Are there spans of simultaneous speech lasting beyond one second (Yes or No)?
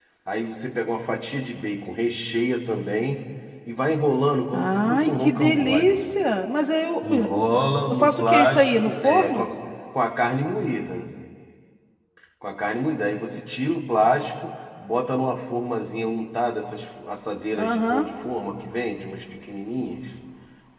Yes